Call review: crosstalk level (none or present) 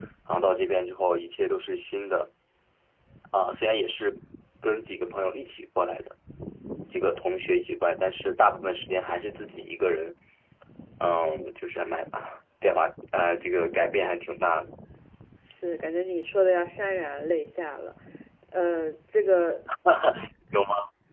none